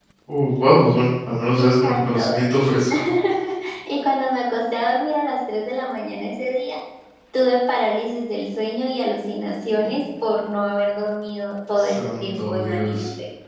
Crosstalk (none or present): present